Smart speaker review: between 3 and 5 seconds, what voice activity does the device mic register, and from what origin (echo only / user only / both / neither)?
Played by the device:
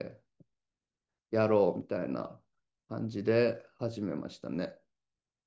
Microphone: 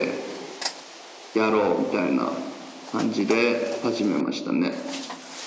echo only